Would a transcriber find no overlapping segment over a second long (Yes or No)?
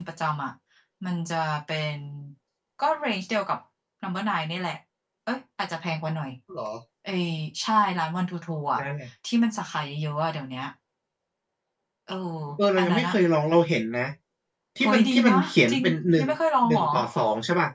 No